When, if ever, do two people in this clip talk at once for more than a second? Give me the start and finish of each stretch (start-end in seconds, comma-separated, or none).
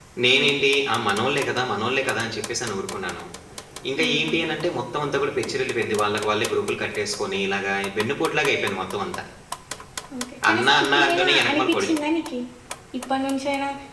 10.5-11.9